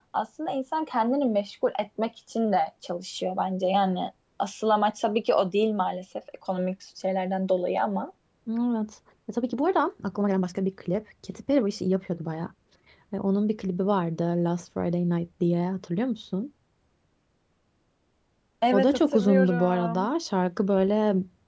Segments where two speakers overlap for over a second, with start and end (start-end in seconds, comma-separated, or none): 18.7-20.1